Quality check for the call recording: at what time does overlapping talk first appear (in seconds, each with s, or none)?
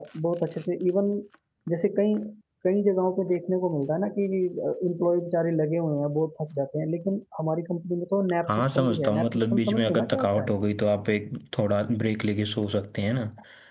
8.5 s